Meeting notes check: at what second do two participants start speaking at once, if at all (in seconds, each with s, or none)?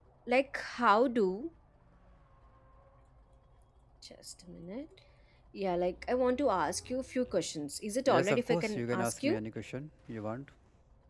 8.1 s